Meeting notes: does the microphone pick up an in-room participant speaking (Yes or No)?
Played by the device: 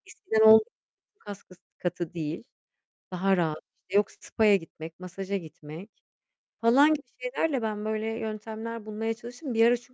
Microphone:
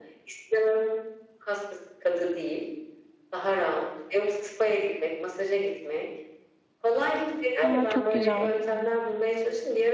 Yes